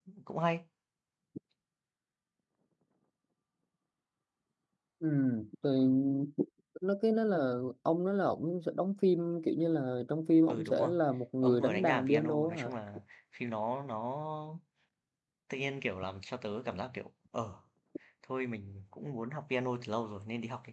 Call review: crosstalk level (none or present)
present